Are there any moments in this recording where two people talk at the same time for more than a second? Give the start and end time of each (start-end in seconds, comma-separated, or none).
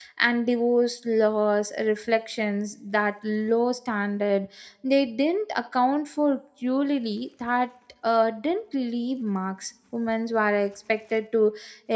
none